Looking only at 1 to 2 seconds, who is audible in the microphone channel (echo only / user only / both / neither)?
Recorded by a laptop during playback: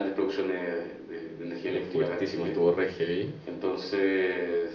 both